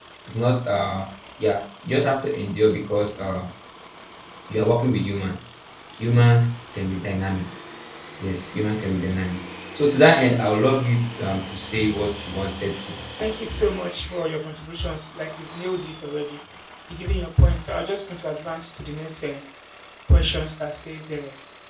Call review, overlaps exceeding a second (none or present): none